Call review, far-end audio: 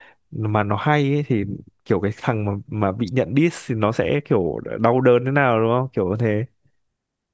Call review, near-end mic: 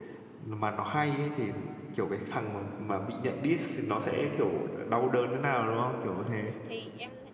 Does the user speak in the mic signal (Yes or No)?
Yes